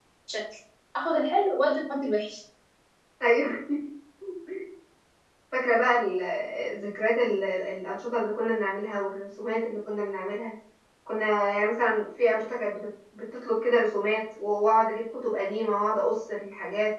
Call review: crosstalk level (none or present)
none